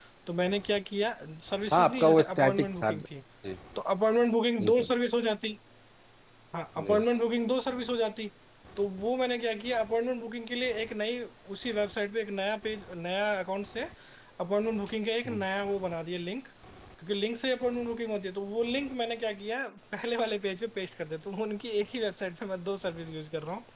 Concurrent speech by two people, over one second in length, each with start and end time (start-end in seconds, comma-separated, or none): 1.7-3.1